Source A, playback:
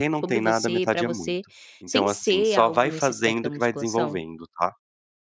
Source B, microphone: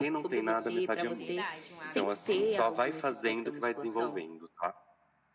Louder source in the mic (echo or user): echo